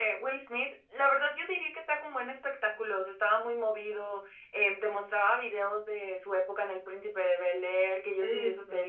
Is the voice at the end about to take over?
No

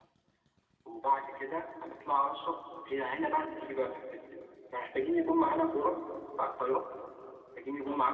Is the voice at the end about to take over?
No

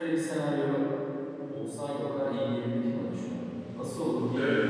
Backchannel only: No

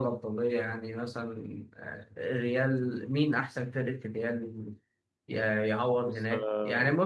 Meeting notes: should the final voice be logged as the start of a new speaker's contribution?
No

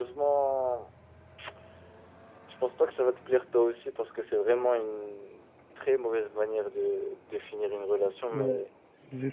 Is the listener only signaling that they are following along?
No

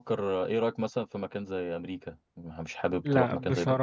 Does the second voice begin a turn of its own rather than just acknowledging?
Yes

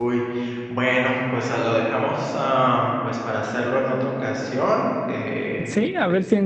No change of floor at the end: No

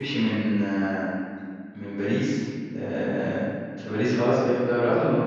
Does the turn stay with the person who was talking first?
No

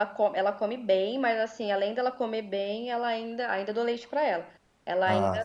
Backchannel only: Yes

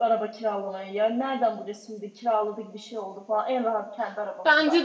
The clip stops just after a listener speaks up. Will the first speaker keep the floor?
No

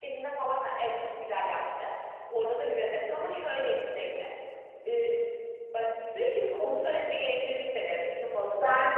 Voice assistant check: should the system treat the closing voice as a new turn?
No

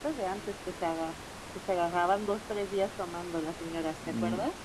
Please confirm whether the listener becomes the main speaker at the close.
Yes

